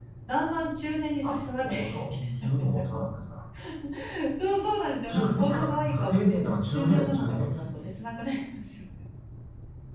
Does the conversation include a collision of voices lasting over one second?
Yes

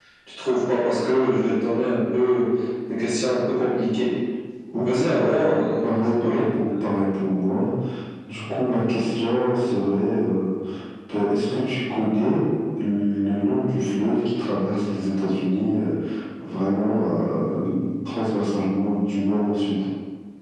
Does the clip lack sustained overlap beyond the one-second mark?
No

